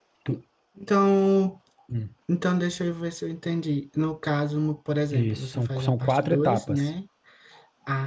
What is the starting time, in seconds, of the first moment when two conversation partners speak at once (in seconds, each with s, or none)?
5.1 s